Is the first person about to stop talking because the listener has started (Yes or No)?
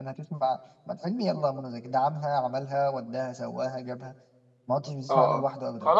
Yes